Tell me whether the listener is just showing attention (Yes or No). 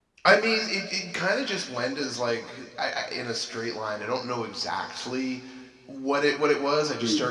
Yes